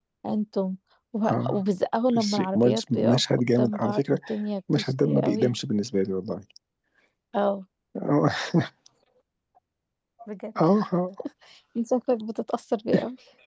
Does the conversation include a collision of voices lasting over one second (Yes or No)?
Yes